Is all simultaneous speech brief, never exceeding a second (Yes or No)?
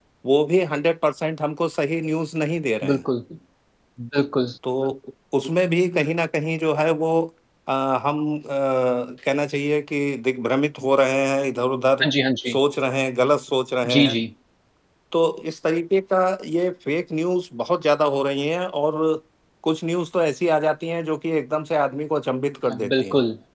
Yes